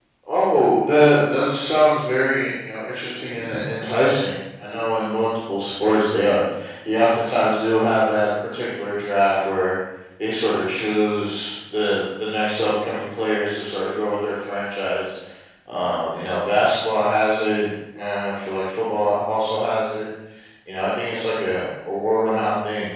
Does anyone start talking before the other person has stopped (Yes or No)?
No